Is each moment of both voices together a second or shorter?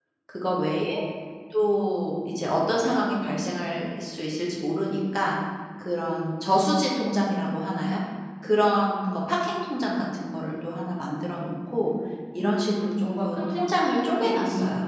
No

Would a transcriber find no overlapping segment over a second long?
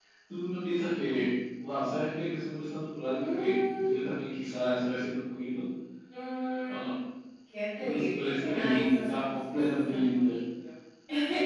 No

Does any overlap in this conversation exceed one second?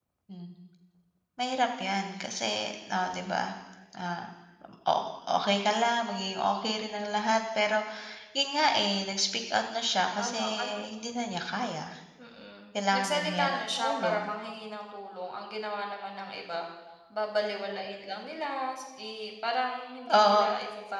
Yes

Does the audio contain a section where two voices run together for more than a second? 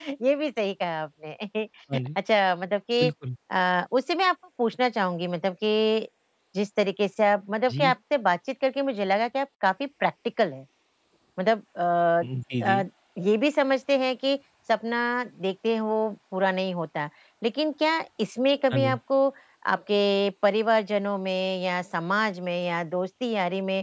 No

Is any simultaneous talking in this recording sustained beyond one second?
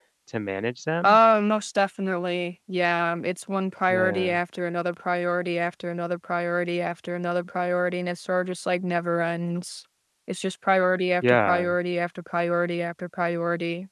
No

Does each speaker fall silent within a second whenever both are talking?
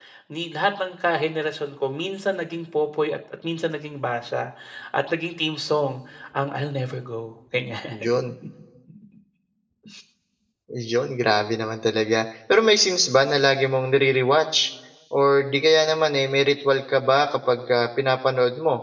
Yes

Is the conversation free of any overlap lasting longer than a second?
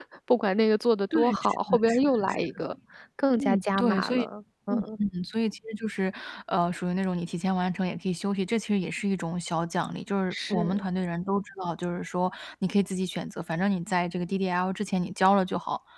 No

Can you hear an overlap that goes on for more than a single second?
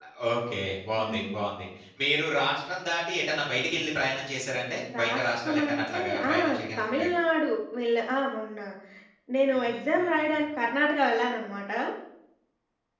Yes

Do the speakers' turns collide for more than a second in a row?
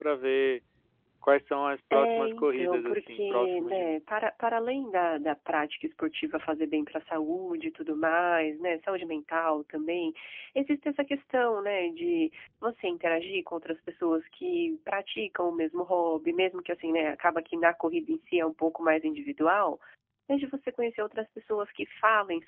Yes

